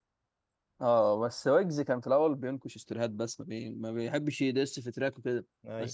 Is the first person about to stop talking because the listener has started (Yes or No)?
No